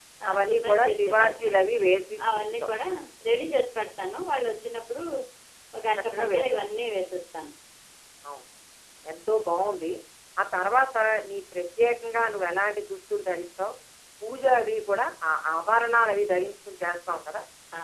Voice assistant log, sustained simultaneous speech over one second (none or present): present